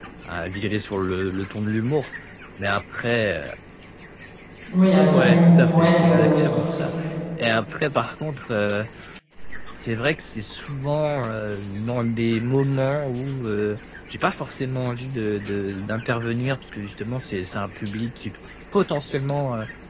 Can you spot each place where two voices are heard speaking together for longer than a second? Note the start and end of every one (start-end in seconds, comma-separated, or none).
5.1-6.9